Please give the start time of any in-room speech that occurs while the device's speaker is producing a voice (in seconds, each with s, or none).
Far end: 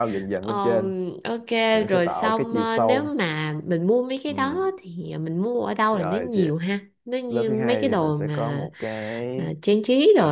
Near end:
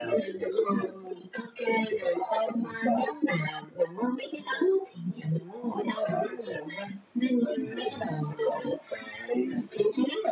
none